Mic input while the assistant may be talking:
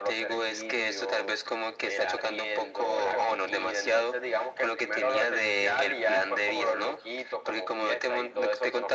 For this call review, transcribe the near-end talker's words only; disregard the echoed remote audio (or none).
none